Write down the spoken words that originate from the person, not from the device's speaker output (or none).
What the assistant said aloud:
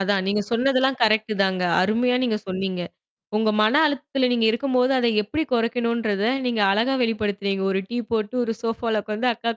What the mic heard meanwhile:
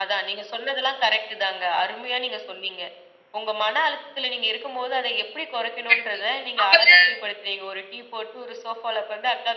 கண்டிப்பா, அப்பதா